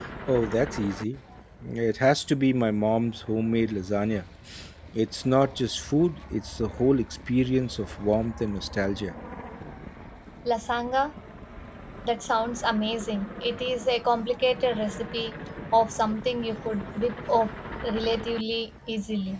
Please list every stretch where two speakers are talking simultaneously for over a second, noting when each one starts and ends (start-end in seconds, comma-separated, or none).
none